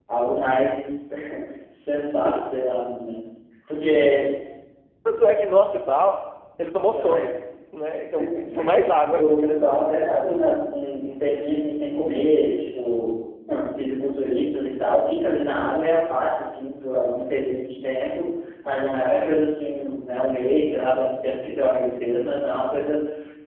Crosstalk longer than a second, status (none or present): none